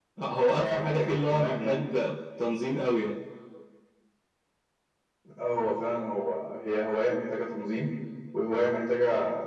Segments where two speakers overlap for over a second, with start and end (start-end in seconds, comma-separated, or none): 0.6-1.8